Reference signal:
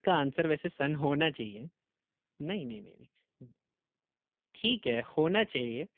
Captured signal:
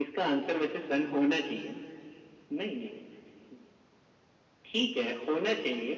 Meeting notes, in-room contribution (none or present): none